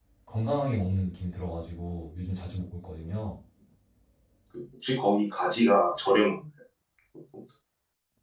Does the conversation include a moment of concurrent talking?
No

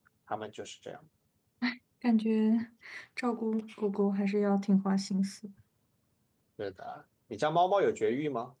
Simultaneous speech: No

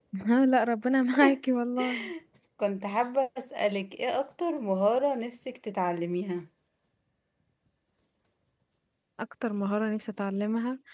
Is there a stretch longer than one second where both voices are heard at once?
No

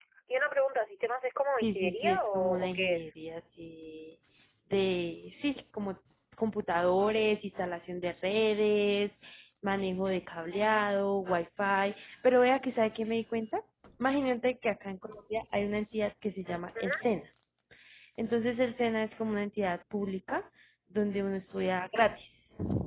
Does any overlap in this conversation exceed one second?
Yes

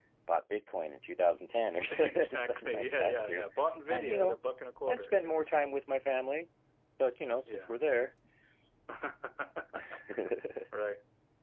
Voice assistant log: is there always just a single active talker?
No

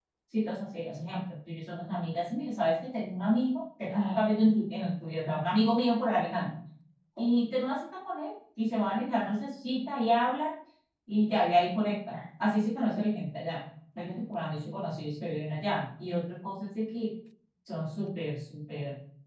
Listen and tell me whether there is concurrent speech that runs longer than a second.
No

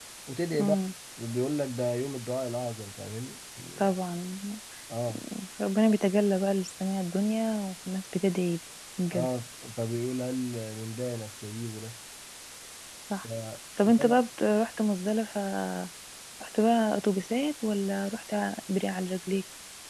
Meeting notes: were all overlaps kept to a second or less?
Yes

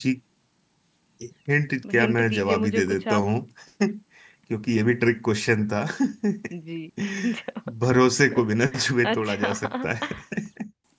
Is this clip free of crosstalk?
No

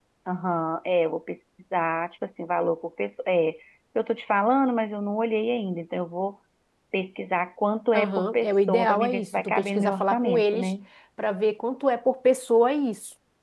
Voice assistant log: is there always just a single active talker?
No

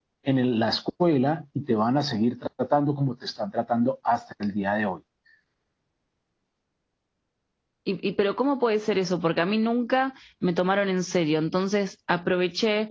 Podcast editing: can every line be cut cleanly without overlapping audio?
Yes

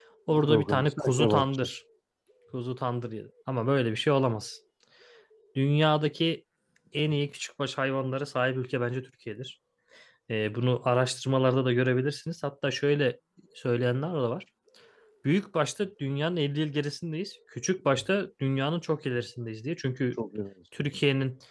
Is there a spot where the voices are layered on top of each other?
Yes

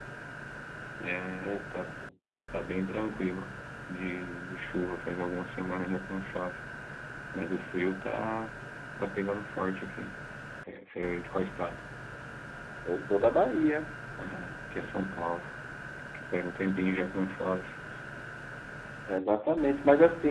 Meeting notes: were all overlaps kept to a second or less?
Yes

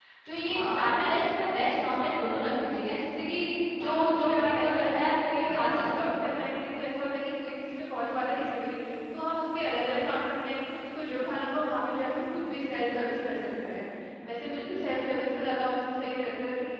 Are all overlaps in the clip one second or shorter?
No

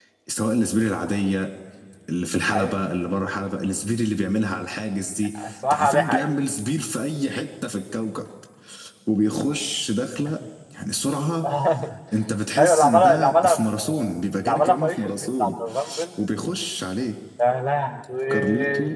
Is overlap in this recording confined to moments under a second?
No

